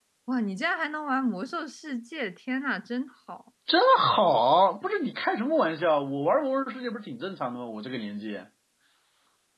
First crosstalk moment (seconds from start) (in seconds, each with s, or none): none